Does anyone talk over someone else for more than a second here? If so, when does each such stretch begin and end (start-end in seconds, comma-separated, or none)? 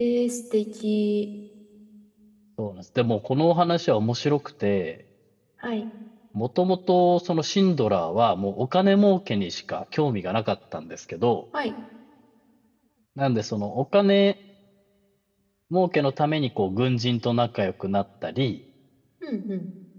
none